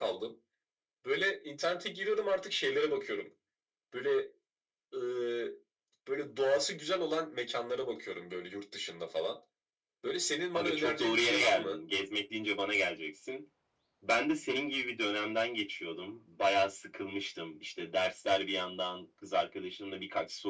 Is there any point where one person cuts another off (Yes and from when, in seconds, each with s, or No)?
Yes, from 10.5 s